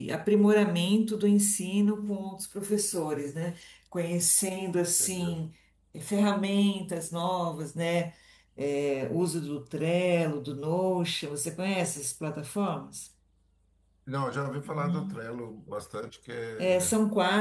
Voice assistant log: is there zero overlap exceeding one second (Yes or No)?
Yes